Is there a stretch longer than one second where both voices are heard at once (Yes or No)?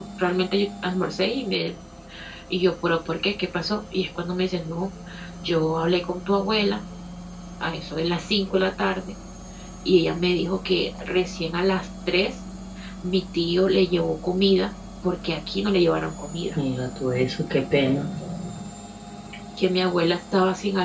No